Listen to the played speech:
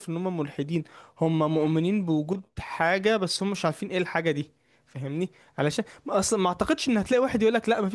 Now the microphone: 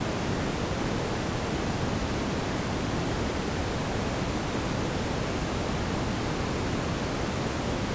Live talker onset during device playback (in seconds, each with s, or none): none